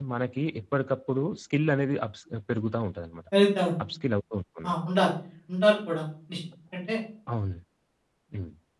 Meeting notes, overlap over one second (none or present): none